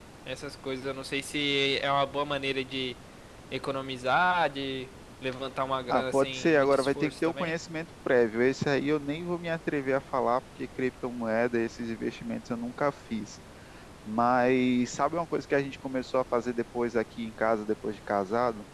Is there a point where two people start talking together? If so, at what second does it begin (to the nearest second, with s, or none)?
6 s